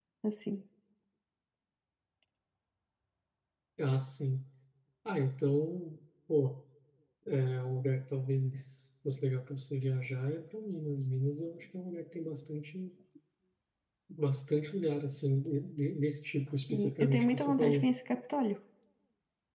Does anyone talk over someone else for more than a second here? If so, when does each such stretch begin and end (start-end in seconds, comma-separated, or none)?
16.7-17.9